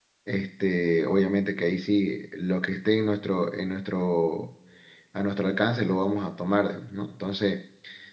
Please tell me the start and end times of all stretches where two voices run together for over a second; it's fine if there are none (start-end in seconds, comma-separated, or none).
none